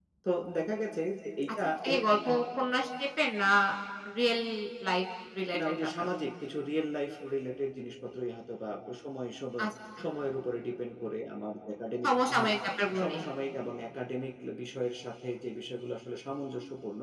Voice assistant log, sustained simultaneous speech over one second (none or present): none